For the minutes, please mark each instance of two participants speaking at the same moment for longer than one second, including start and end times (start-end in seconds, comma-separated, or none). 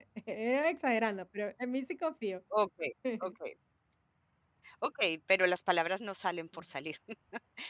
none